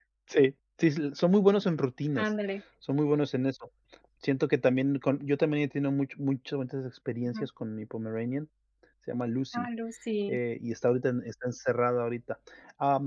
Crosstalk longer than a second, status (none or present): none